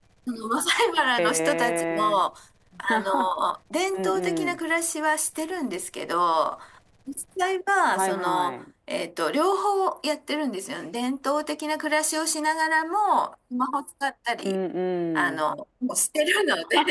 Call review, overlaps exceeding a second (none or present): present